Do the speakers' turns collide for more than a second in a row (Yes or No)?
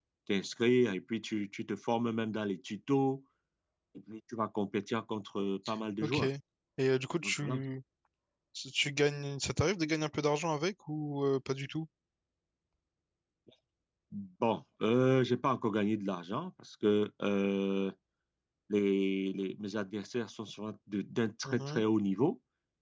No